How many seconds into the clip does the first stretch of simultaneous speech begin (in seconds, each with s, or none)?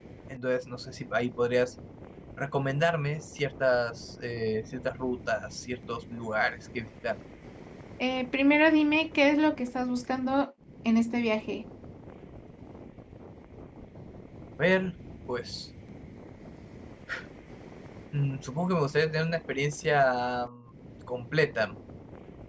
none